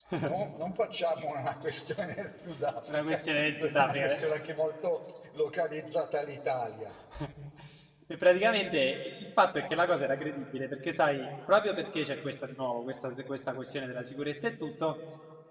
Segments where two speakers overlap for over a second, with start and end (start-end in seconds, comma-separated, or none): 2.9-4.2